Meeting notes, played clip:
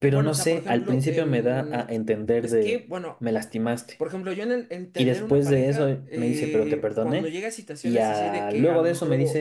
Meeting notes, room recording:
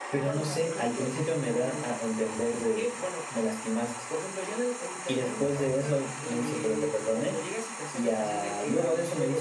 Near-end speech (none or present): none